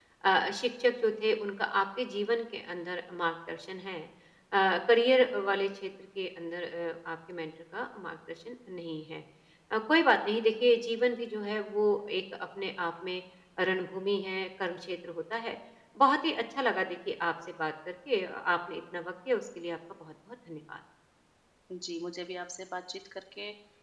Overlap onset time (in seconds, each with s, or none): none